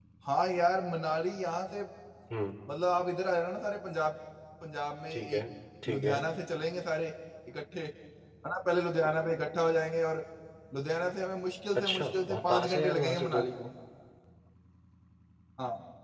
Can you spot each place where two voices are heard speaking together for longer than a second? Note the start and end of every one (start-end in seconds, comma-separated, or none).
11.8-13.5